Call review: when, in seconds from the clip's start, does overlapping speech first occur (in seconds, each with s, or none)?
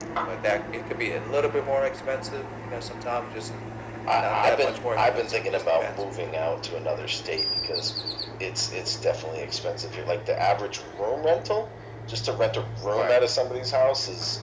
4.1 s